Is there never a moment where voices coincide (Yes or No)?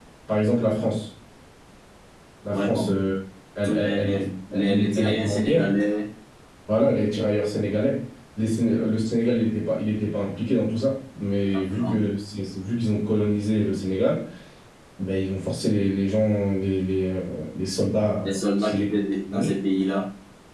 No